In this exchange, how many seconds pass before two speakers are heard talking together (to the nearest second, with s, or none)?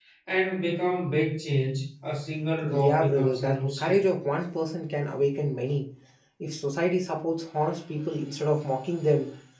3 s